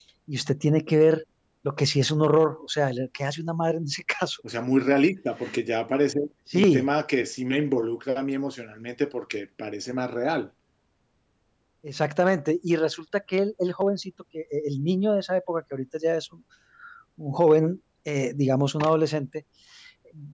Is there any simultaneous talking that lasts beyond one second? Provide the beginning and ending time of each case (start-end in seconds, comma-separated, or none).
none